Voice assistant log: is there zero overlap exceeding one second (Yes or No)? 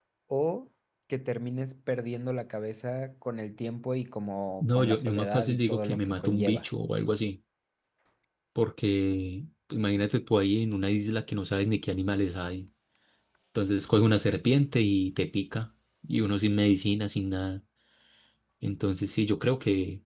No